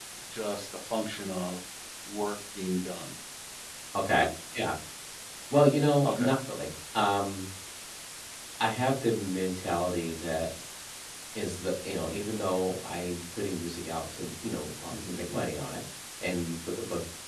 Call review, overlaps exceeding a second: none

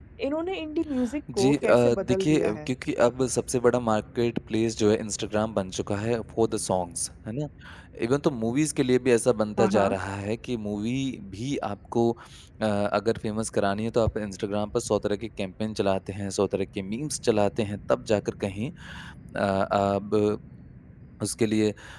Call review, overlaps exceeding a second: present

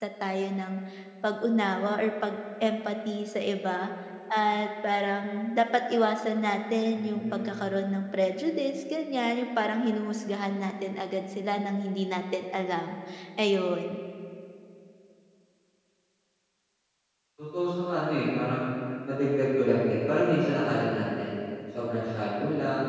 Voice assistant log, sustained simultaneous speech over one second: none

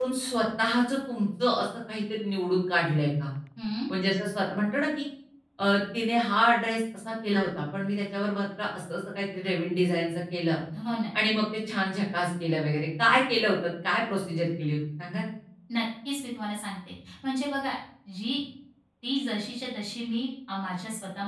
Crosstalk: none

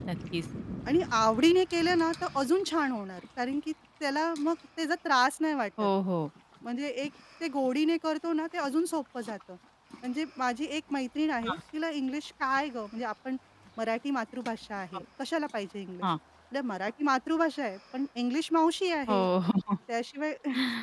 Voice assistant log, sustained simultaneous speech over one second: none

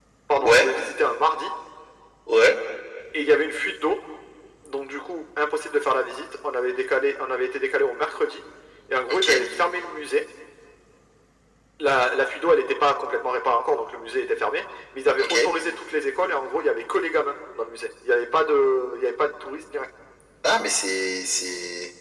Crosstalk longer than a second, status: none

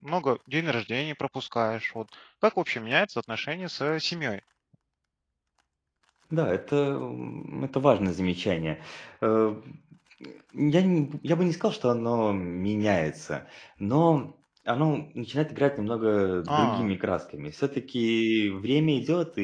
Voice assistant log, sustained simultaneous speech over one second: none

